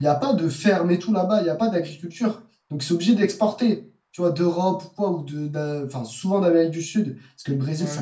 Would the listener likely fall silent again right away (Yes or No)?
Yes